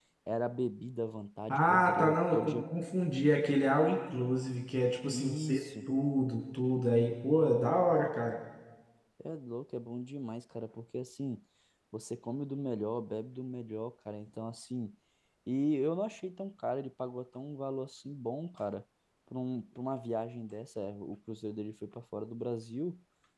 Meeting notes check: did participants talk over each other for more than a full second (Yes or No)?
Yes